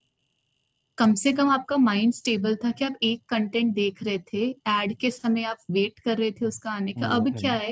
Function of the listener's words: listening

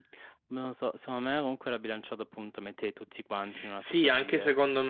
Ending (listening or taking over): taking over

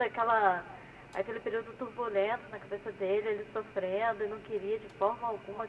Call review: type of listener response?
taking over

